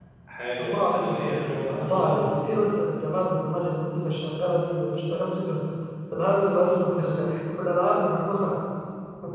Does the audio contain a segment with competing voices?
Yes, from 0.6 s

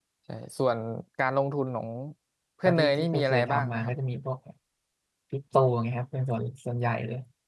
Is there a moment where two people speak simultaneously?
Yes, from 2.6 s

